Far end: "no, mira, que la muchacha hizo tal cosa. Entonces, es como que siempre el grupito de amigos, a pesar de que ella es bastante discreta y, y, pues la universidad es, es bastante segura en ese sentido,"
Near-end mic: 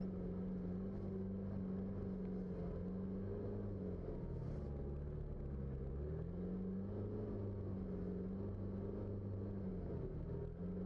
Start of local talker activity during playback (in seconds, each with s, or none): none